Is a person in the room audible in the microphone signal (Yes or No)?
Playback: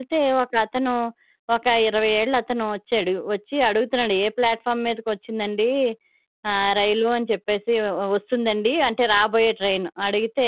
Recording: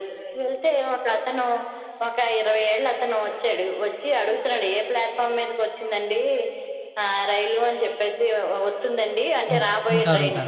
Yes